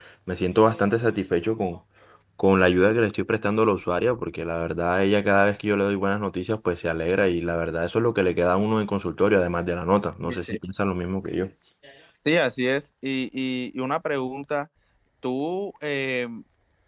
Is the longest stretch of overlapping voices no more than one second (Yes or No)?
Yes